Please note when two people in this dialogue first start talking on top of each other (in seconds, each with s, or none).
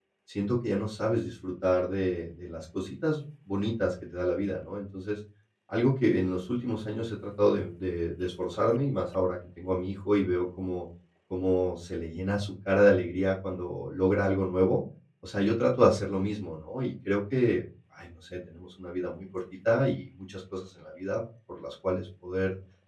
none